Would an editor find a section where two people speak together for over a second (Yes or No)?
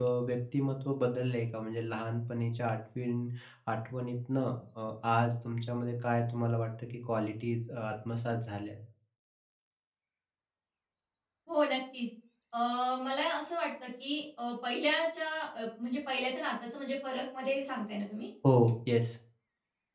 No